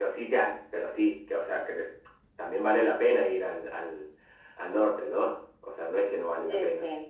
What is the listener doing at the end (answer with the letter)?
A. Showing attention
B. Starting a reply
B